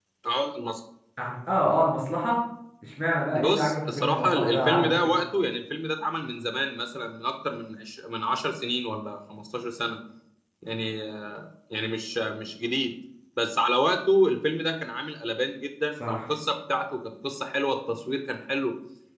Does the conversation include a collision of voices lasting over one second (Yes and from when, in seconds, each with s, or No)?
Yes, from 3.4 s